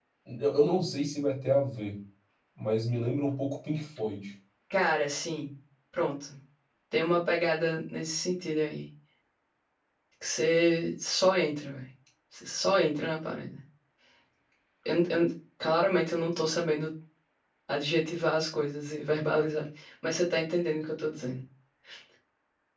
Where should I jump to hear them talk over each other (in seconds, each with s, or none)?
none